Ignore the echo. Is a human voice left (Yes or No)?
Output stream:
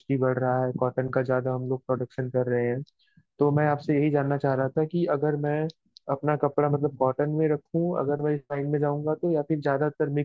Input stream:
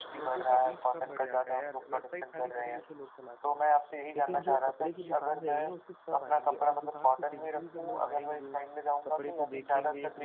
Yes